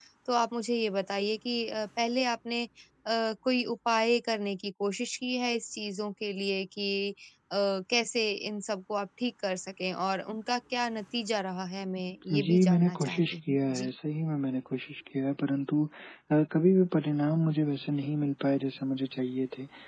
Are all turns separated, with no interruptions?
No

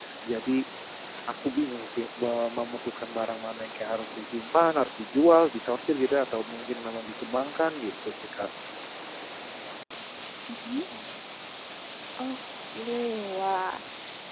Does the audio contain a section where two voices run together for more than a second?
No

